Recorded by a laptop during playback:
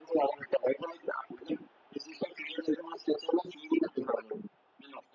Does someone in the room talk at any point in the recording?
No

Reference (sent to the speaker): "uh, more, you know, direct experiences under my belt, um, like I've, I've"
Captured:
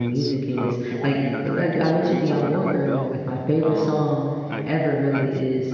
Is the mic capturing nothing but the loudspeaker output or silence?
No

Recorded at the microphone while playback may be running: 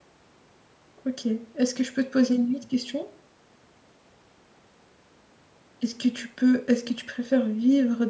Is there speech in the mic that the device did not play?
Yes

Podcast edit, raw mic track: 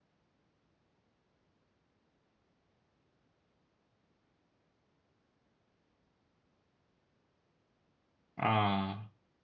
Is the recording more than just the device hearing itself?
Yes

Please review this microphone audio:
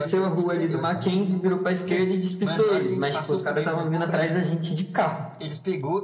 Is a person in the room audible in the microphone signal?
Yes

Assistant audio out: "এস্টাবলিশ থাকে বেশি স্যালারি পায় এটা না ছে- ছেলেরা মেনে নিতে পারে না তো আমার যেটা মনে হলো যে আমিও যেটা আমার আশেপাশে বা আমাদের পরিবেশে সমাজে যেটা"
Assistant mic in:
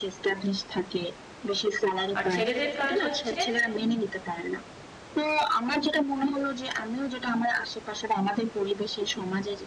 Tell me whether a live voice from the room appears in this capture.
Yes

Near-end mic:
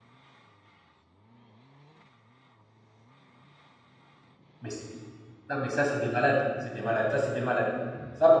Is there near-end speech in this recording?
Yes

